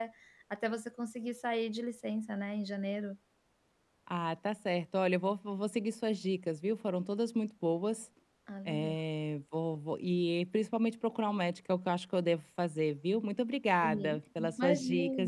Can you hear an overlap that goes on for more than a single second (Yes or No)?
Yes